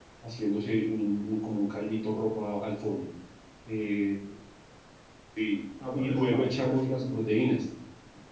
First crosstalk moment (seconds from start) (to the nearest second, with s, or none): 6 s